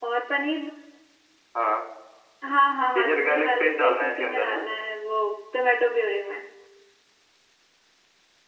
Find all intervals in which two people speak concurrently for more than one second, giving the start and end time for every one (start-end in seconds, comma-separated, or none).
3.0-4.7